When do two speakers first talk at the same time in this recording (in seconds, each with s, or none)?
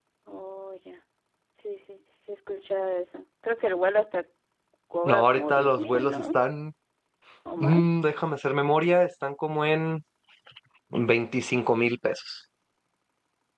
5.0 s